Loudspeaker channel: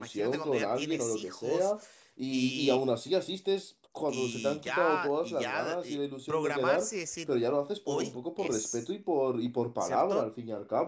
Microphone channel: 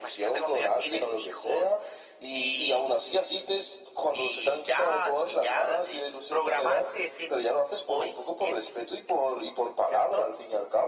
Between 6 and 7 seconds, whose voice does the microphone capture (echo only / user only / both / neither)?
echo only